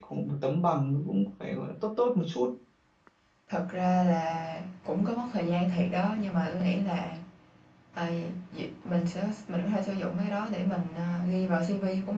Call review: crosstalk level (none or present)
none